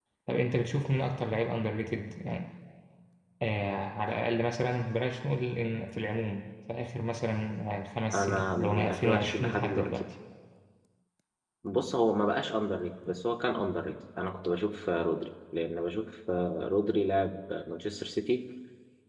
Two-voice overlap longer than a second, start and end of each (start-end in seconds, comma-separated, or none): 8.1-10.0